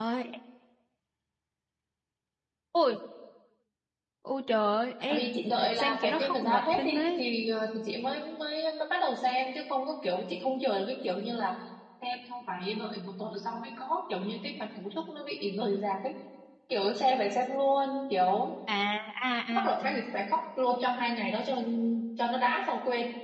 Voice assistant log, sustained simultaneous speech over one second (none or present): present